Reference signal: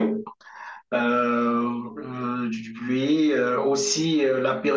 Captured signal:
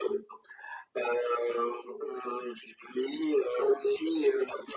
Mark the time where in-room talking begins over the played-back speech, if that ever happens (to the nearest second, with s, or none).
none